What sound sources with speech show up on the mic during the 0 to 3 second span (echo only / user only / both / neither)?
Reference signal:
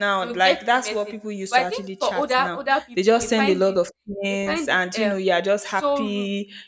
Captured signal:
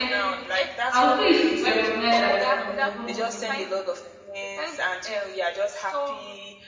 both